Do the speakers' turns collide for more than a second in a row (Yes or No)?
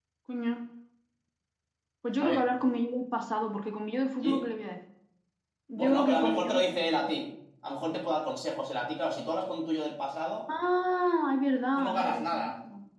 Yes